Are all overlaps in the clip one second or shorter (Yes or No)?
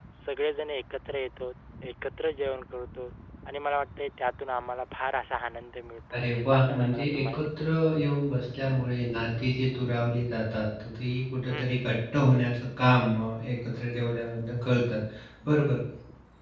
No